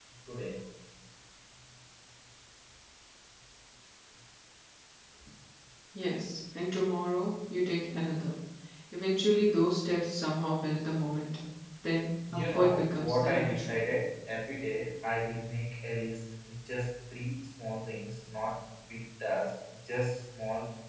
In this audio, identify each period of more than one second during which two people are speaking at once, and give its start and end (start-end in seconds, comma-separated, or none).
12.3-13.8